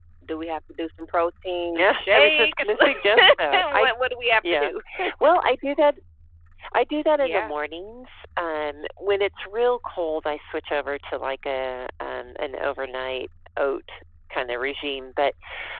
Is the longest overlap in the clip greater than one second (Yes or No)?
Yes